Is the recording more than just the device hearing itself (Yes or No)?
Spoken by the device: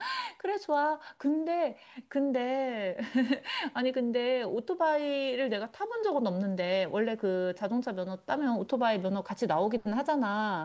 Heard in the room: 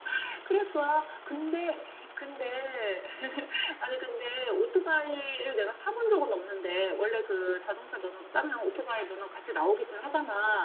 No